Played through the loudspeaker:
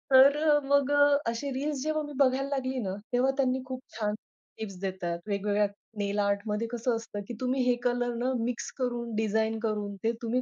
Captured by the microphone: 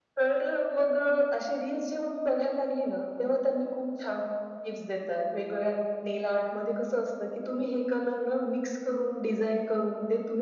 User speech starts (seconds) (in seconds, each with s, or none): none